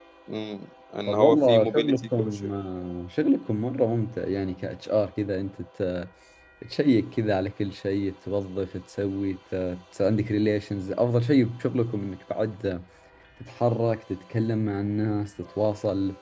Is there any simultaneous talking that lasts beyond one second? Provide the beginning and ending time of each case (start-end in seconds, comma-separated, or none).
1.1-2.5